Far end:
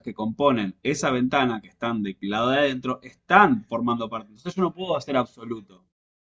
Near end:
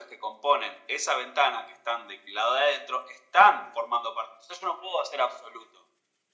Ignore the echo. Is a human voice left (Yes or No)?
No